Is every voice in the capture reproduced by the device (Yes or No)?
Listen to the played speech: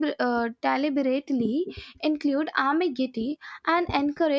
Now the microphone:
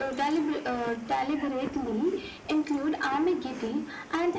Yes